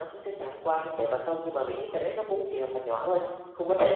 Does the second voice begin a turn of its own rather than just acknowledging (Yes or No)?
Yes